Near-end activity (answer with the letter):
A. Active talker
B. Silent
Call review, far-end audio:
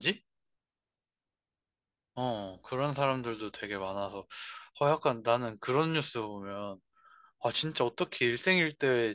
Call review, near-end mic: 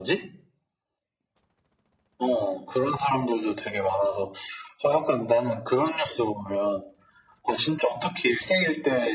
B